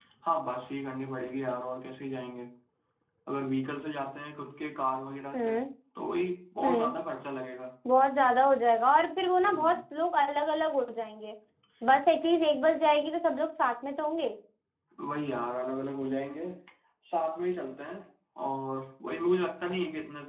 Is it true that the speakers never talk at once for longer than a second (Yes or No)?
Yes